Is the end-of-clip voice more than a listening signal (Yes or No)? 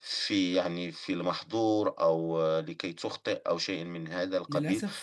Yes